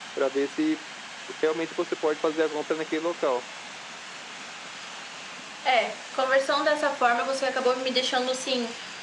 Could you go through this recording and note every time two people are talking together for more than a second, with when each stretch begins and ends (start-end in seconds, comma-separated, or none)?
none